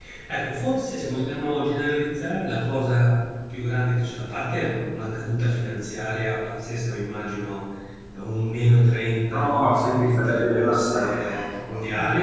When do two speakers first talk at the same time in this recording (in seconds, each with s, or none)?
9.3 s